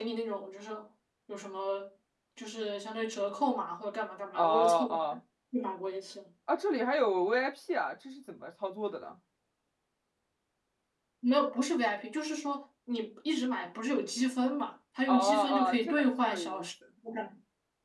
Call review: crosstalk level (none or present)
present